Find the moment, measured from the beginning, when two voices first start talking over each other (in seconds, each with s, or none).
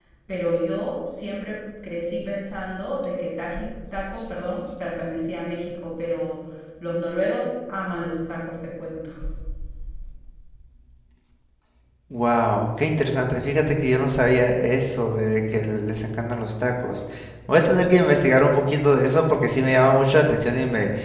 none